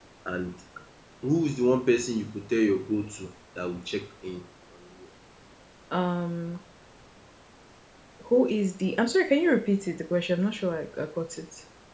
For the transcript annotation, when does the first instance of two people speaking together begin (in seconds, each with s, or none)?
none